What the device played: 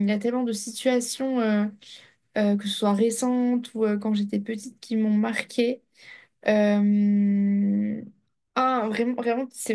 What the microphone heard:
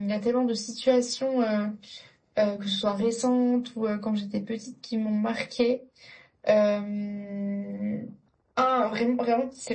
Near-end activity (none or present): none